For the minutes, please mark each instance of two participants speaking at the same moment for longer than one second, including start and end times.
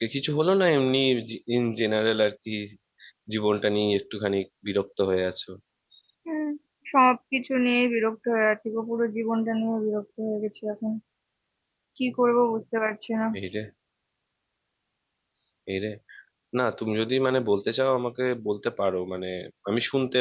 none

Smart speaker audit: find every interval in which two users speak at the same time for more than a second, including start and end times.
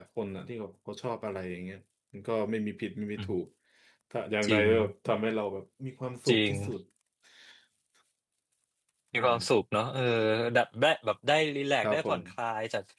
none

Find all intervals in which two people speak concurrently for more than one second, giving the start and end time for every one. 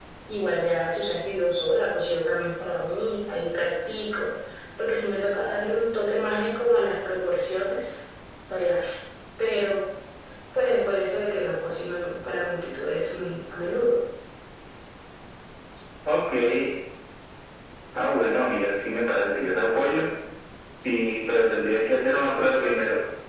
none

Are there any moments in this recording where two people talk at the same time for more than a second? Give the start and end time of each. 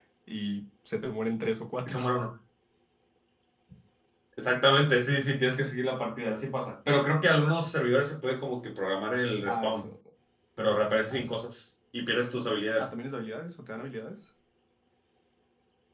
none

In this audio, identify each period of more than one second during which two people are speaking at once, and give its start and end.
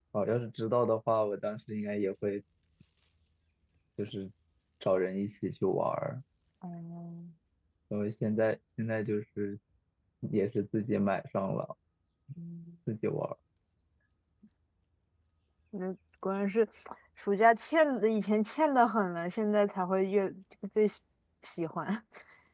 none

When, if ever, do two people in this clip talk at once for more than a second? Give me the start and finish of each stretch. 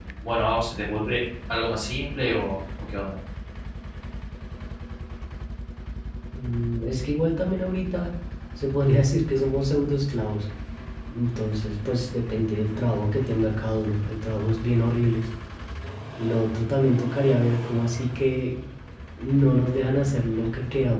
none

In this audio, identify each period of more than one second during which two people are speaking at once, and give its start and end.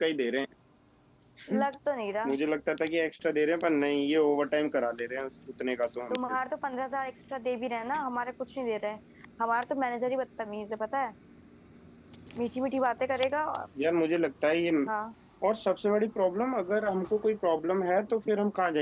none

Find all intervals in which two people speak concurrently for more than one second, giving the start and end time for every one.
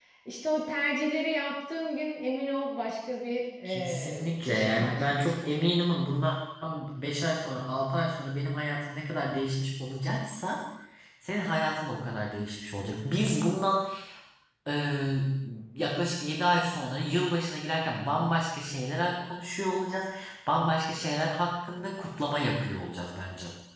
3.6-5.7

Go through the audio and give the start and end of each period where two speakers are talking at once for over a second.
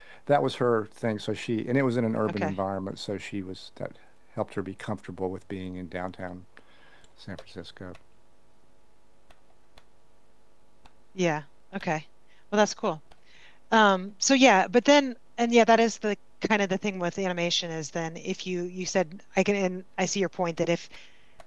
none

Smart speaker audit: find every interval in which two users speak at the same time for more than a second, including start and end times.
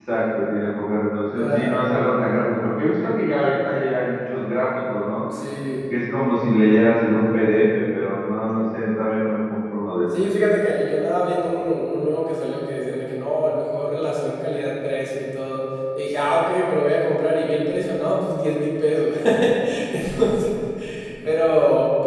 none

